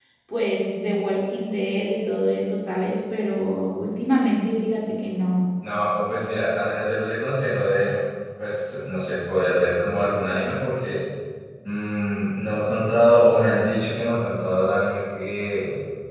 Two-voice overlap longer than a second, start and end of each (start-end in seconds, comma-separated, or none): none